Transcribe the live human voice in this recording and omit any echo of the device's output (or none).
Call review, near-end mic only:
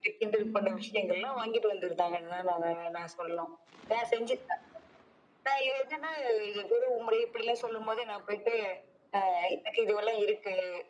ம்.